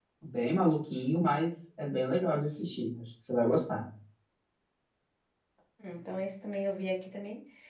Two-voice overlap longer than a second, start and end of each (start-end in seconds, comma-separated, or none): none